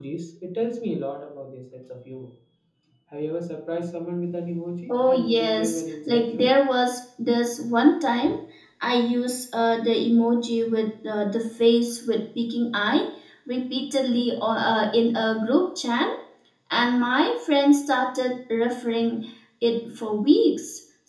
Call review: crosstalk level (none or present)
present